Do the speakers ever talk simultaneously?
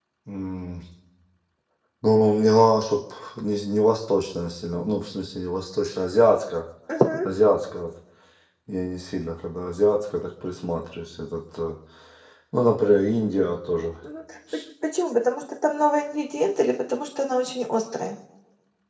No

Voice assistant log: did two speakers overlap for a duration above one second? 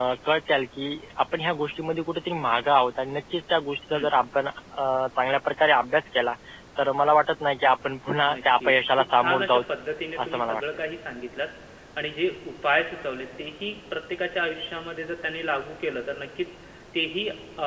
Yes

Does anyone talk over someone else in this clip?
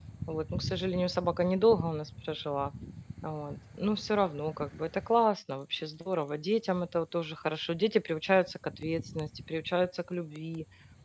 No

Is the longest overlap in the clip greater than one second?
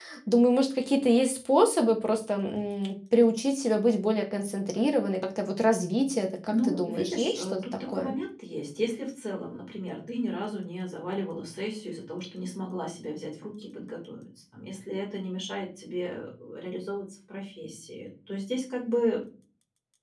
Yes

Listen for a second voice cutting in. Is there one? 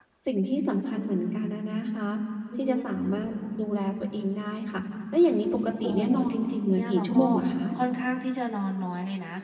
Yes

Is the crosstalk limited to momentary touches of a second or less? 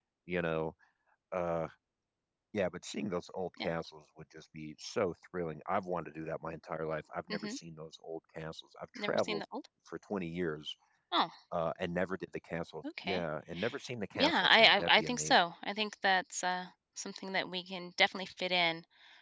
No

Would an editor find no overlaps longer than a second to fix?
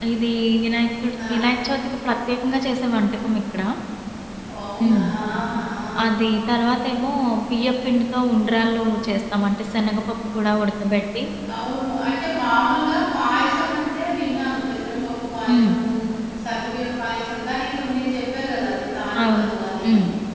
Yes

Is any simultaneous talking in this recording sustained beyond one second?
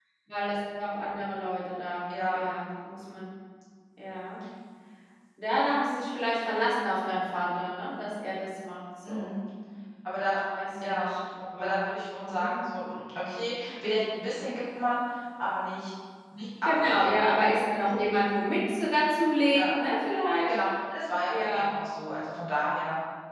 No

